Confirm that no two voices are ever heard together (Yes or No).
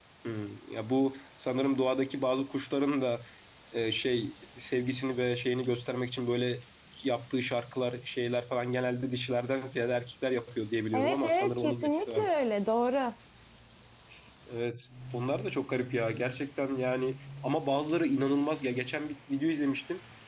No